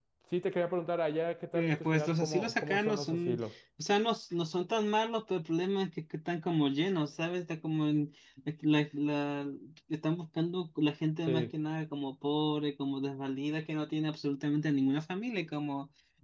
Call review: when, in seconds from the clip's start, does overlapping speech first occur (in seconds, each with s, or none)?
1.5 s